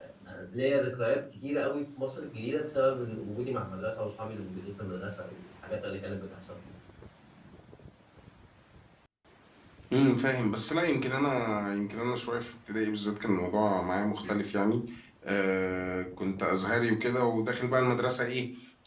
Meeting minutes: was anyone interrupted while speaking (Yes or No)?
No